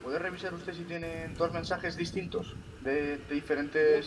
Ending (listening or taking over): taking over